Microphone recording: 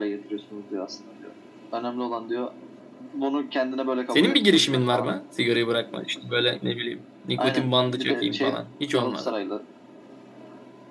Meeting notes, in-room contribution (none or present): present